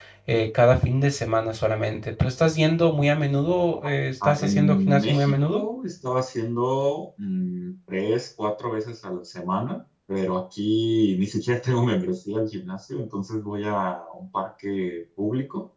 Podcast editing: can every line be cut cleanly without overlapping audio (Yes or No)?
No